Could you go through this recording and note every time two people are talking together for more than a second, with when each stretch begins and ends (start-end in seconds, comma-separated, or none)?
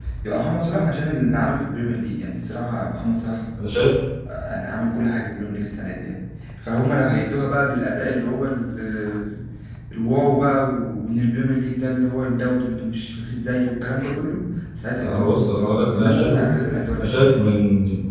15.0-16.4